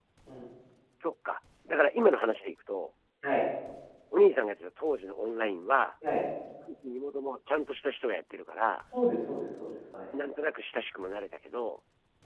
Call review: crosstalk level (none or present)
none